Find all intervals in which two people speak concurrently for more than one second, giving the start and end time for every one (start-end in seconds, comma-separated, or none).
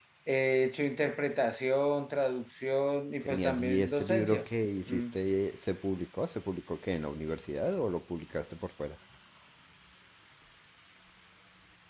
3.2-4.4